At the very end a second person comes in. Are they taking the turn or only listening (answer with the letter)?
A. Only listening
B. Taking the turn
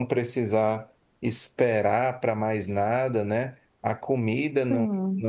A